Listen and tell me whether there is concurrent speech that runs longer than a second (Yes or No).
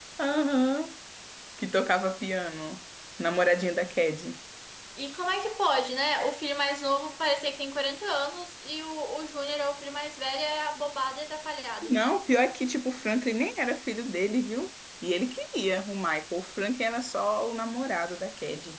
No